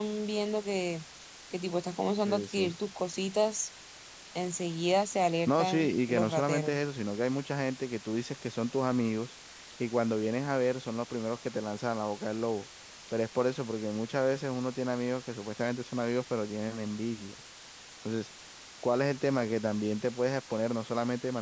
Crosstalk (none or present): present